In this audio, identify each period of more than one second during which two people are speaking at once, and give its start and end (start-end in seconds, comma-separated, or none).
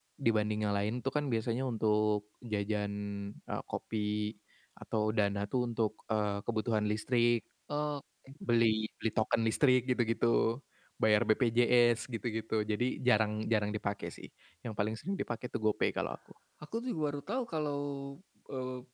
none